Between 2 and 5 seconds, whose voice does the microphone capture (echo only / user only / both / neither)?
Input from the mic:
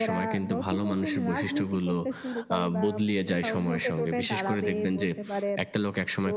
echo only